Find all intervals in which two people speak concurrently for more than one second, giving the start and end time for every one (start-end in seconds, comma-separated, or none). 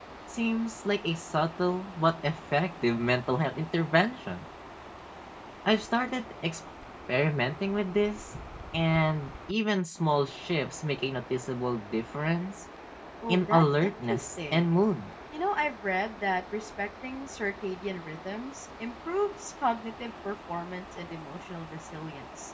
13.3-14.7